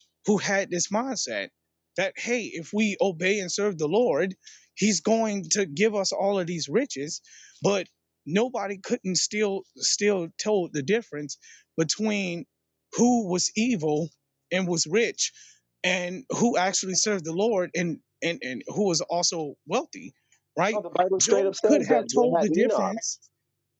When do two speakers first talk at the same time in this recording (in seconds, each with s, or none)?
21.2 s